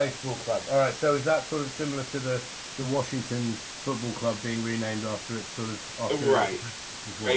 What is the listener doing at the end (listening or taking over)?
taking over